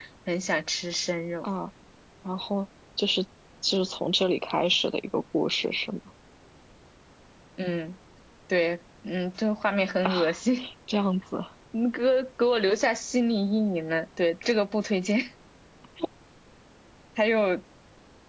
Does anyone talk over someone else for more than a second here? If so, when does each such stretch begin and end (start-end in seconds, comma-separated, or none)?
none